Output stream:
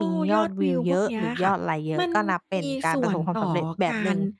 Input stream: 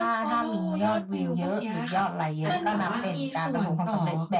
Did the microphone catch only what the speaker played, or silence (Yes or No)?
No